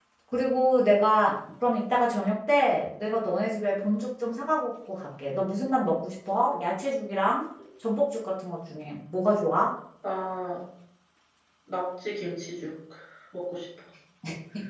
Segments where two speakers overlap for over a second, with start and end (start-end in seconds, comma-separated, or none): none